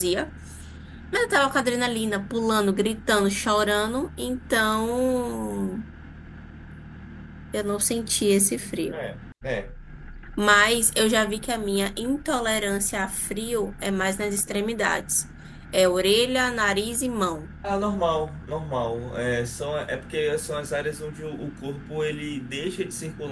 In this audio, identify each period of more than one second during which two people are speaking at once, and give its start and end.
none

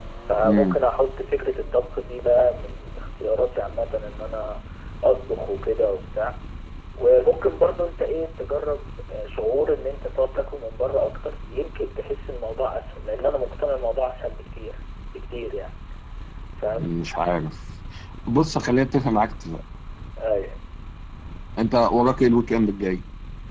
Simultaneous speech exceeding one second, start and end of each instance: none

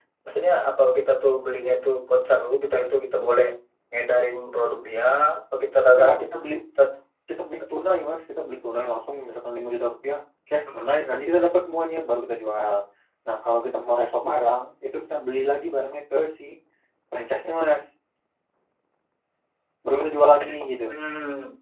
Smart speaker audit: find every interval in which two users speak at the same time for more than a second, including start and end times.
none

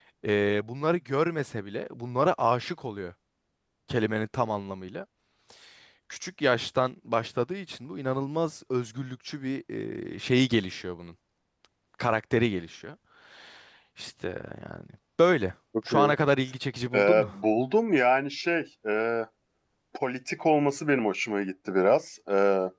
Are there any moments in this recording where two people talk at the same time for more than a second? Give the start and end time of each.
none

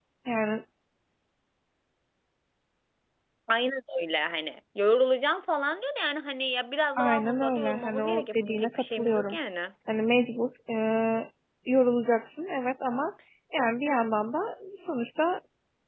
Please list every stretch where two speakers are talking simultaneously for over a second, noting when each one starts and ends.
7.0-9.4

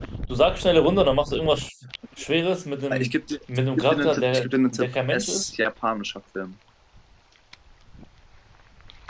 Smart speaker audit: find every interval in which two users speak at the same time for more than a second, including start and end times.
3.8-5.4

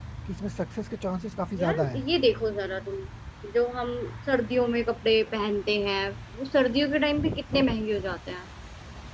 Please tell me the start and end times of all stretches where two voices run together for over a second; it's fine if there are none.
none

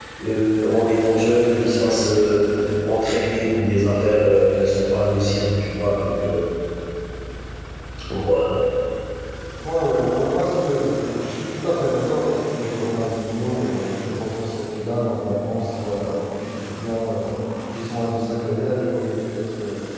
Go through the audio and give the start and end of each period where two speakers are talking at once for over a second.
none

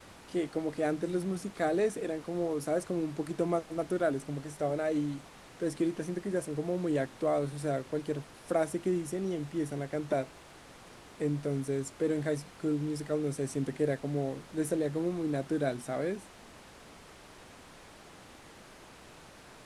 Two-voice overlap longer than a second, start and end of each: none

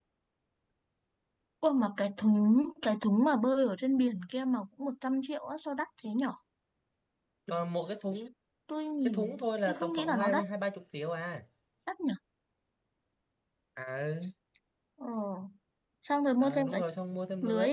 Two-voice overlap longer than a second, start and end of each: 9.0-10.4

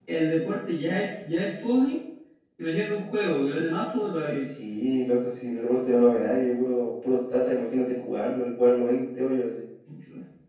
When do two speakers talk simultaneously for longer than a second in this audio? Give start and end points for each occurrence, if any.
none

